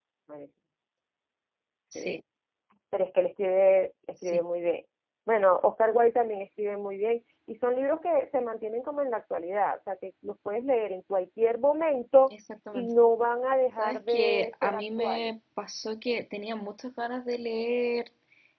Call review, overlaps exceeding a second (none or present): present